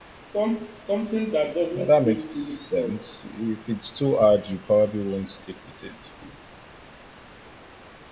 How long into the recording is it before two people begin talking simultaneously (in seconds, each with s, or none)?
1.8 s